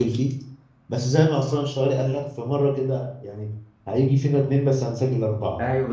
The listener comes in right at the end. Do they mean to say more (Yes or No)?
Yes